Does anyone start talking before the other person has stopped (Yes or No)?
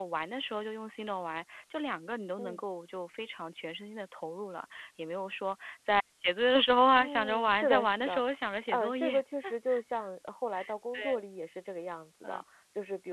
Yes